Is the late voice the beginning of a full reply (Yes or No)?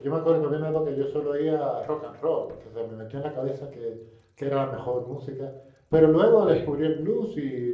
No